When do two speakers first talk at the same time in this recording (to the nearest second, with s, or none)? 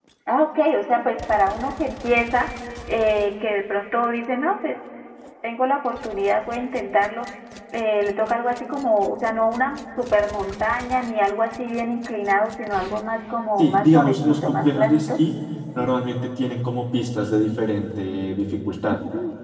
14 s